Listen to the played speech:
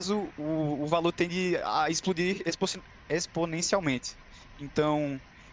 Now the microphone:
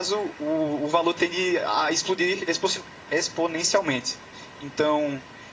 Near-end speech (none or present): none